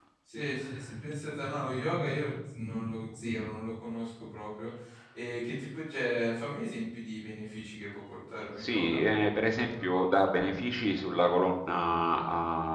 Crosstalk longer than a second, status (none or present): none